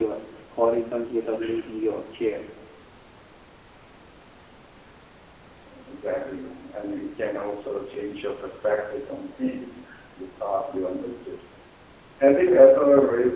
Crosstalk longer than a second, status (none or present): none